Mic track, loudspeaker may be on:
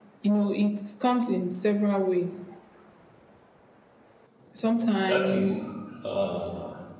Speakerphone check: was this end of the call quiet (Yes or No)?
No